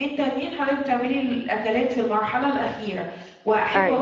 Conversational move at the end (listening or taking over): listening